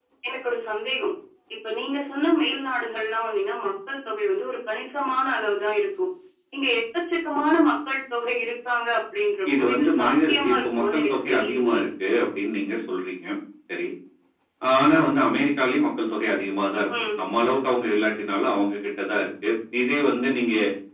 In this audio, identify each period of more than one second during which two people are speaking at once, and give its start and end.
9.6-11.8

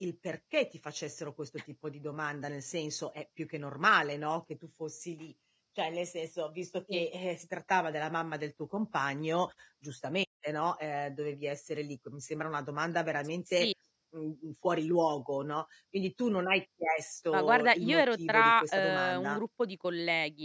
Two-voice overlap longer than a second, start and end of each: 17.3-19.4

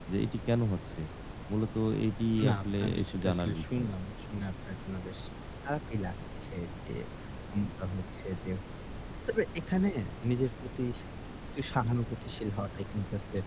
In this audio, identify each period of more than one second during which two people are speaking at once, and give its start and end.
2.5-3.9

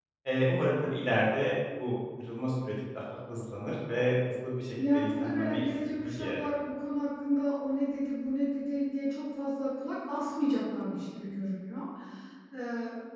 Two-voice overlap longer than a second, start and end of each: 4.8-6.4

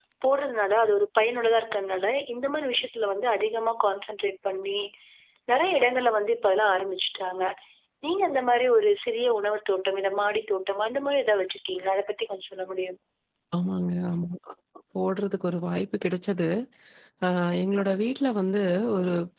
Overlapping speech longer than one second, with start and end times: none

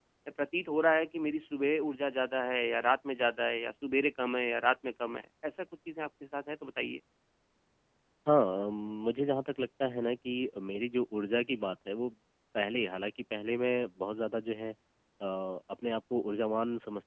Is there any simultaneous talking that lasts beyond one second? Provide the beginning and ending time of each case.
none

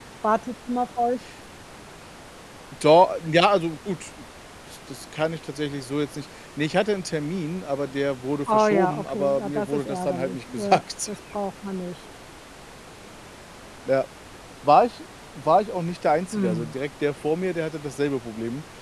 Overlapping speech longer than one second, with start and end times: 8.5-11.1

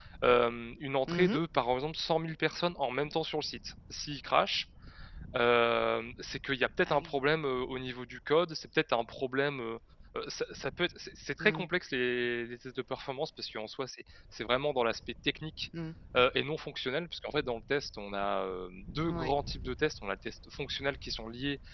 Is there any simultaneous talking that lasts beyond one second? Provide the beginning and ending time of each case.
none

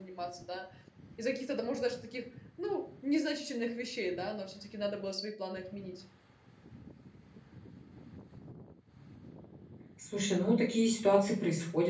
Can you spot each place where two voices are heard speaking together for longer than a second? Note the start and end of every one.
none

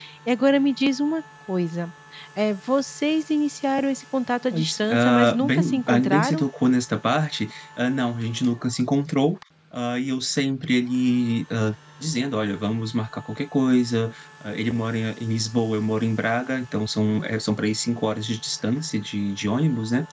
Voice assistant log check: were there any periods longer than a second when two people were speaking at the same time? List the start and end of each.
4.5-6.4

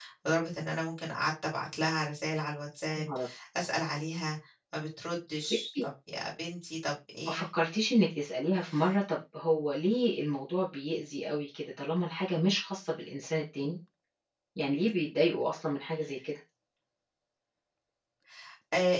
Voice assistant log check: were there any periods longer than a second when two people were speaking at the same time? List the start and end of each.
none

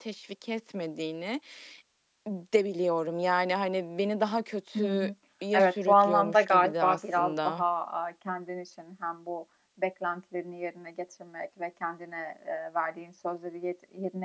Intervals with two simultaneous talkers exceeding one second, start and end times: 5.6-7.6

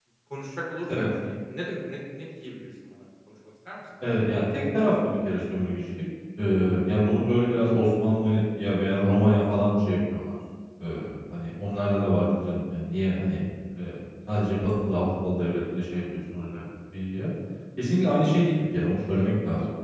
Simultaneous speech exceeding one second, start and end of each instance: none

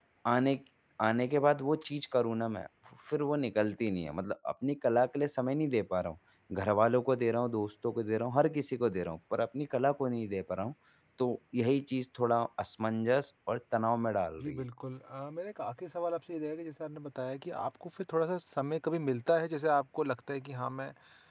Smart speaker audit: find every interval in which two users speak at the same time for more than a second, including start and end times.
none

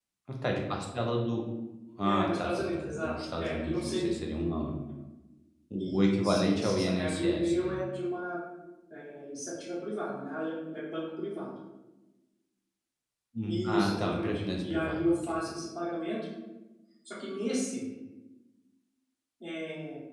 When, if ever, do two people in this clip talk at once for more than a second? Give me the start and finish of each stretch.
2.0-4.1, 5.8-7.8, 13.5-15.4

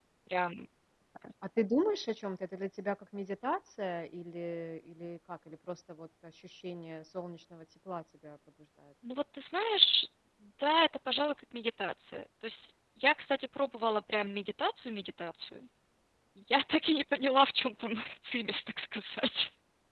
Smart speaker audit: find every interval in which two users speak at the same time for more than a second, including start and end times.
none

